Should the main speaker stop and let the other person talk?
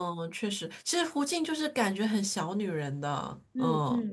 Yes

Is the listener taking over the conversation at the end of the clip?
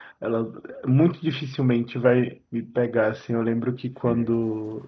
No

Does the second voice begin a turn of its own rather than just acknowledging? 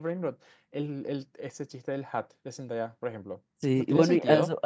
Yes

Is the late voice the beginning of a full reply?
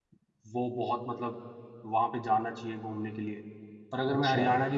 No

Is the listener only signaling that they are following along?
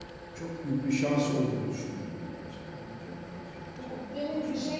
No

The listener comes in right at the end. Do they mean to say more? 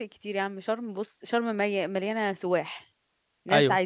No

